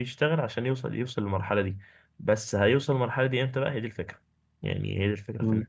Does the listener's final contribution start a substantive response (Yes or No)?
No